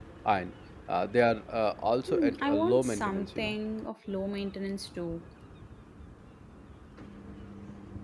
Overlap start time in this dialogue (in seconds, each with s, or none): 2.1 s